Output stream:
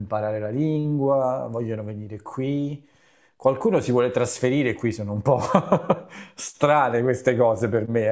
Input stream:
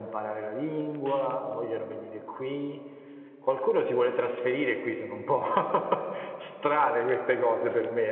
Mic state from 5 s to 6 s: echo only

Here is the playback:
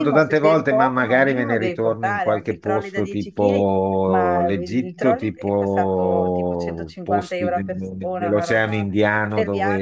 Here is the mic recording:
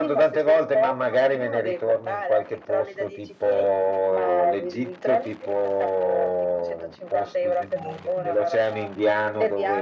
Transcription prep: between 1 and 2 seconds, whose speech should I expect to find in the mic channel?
echo only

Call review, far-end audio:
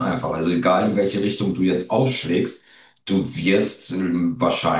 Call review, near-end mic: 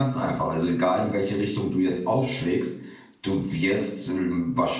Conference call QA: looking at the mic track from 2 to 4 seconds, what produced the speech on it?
echo only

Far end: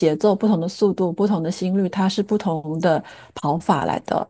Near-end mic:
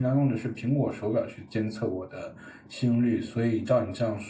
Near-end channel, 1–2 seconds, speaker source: user only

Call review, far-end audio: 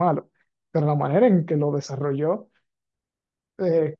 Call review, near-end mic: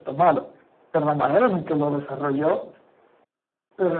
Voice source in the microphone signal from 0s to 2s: echo only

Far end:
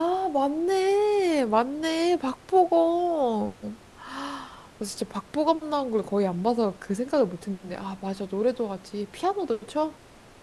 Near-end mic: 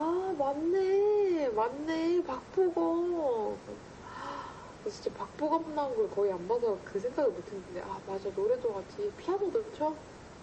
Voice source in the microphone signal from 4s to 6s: echo only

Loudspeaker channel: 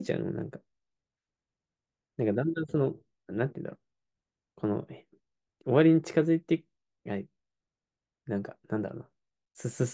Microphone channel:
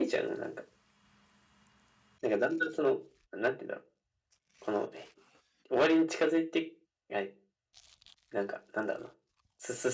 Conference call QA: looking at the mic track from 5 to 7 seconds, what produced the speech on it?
echo only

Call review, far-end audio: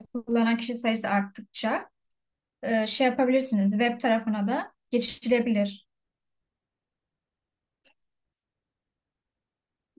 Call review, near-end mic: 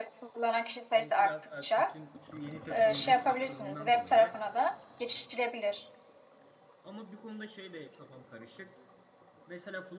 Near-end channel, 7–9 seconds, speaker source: user only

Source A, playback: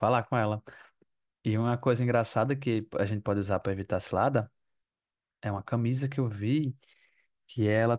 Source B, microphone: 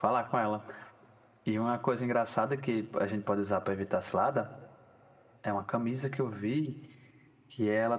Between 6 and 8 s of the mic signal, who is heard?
echo only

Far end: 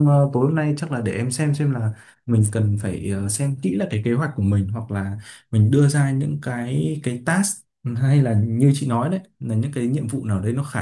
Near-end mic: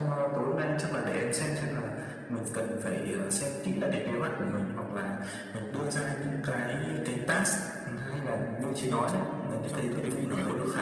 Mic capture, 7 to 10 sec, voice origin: both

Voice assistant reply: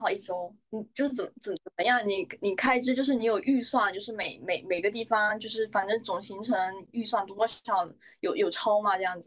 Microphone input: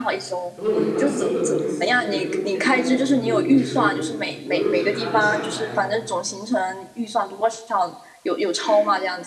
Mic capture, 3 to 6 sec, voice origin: both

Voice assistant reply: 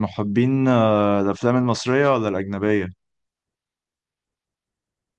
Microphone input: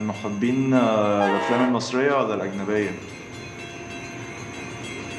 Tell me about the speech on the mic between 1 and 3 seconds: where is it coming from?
echo only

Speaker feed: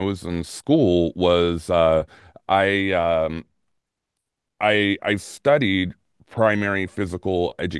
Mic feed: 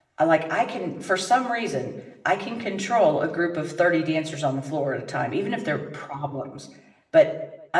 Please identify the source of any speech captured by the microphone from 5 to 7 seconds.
user only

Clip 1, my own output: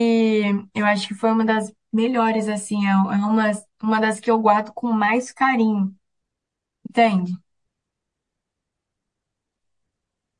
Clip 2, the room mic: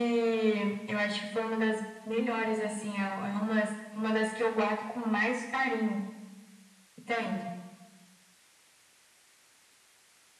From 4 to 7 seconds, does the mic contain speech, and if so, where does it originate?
echo only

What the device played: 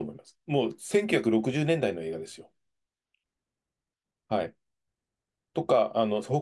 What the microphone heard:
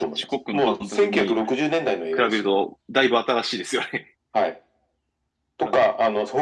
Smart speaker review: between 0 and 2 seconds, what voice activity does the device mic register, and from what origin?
both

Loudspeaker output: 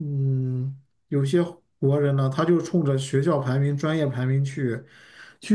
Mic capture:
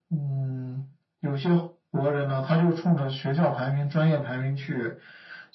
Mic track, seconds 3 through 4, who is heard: echo only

